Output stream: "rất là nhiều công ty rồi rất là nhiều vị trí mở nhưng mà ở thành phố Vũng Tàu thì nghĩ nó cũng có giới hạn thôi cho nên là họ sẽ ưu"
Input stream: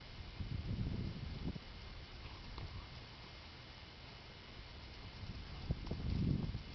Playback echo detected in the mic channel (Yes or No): No